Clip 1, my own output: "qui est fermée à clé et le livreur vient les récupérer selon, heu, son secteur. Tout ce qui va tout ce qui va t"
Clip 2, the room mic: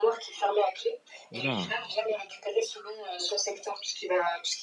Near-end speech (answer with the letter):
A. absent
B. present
B